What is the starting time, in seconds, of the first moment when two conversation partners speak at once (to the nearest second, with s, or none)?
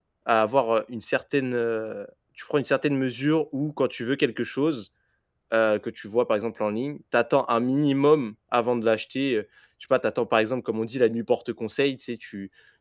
none